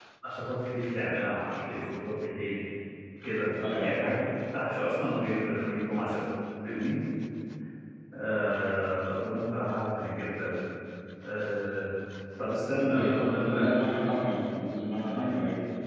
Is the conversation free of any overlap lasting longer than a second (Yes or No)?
No